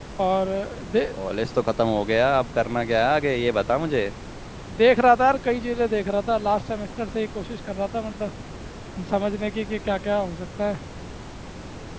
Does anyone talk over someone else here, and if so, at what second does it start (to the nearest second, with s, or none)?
none